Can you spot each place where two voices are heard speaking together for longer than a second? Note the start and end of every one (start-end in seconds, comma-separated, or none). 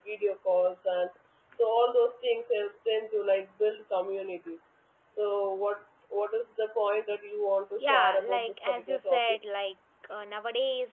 7.8-9.2